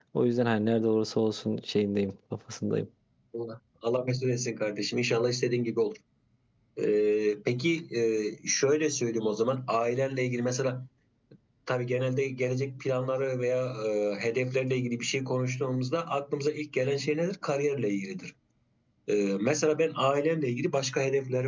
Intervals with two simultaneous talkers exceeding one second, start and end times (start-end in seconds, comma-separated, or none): none